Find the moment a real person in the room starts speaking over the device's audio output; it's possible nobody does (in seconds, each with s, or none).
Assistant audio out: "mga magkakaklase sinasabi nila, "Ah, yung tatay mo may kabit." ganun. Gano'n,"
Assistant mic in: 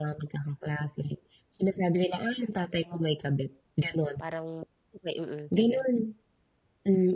4.2 s